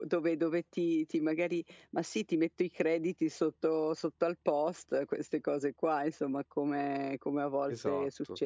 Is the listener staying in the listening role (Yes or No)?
Yes